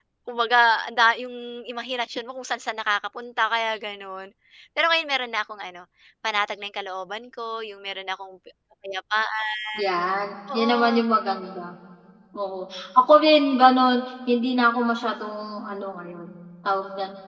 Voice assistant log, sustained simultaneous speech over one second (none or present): none